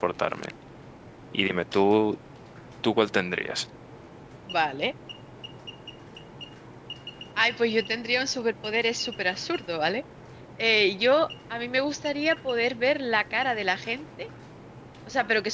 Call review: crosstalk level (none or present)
none